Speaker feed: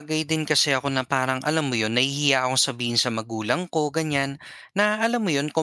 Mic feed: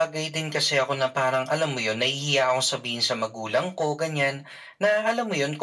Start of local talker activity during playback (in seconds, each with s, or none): none